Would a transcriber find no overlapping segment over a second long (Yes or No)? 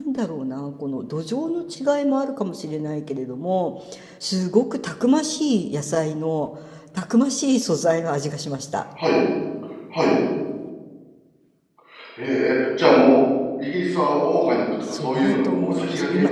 No